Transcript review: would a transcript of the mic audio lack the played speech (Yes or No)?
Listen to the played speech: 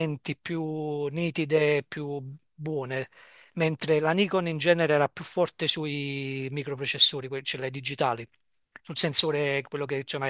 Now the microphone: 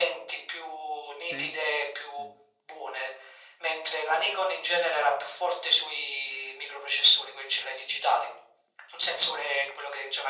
No